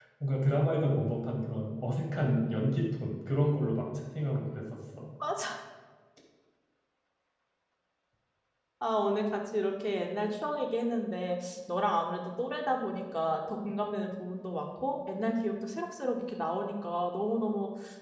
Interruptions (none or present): none